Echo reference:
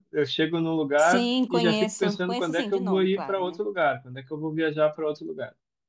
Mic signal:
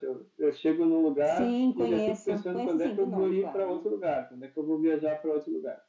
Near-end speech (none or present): none